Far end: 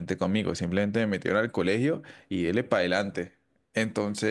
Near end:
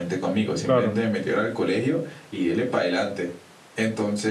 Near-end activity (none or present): present